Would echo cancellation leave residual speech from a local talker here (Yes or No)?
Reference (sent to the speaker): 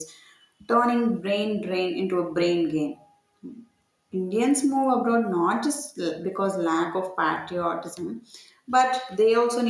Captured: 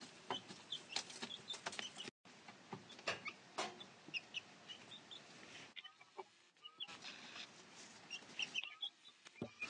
No